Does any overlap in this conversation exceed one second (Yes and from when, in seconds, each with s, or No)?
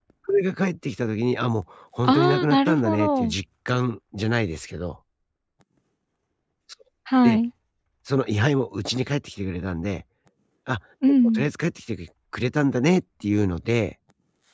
Yes, from 2.0 s